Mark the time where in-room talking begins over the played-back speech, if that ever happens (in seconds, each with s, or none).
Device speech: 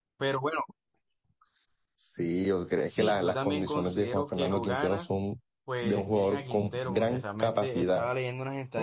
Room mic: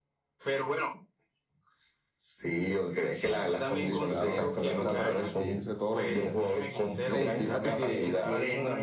3.7 s